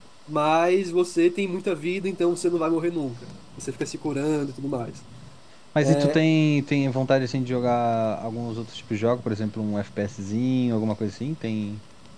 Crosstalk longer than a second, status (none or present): none